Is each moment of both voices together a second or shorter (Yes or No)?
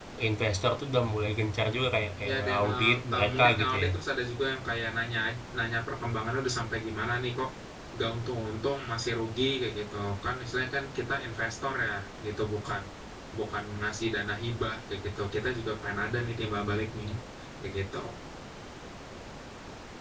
No